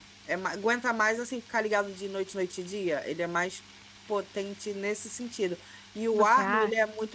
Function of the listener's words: listening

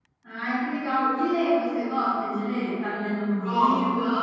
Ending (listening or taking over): taking over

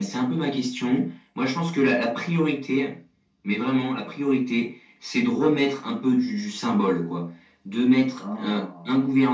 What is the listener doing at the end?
listening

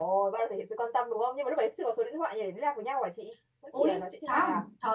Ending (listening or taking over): taking over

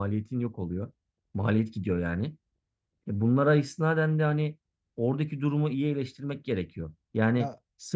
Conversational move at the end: listening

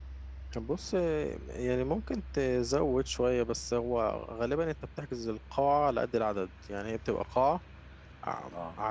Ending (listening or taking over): listening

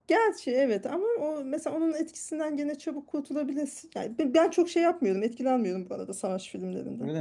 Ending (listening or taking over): taking over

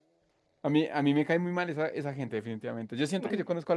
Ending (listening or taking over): listening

